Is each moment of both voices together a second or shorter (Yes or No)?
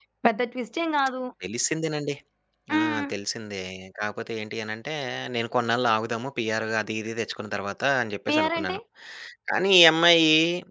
Yes